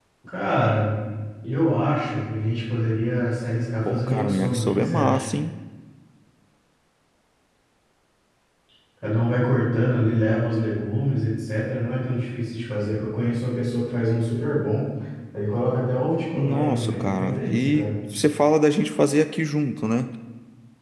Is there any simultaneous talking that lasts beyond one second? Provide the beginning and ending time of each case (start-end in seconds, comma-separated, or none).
3.9-5.2, 16.4-17.9